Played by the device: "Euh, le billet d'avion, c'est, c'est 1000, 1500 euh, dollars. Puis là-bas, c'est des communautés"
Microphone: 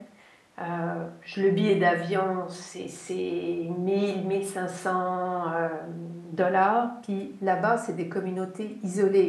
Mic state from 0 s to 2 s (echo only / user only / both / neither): echo only